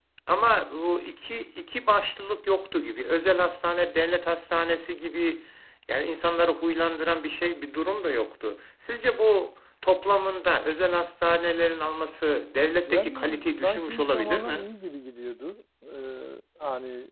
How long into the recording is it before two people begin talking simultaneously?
12.8 s

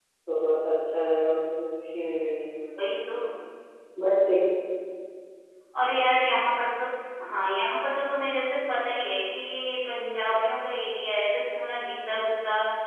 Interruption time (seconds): none

